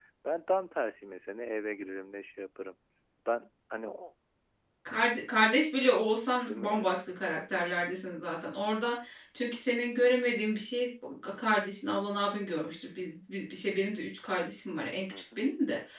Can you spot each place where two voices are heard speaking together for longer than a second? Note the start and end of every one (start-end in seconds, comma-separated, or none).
none